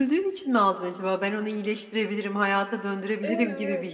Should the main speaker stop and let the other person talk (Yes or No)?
Yes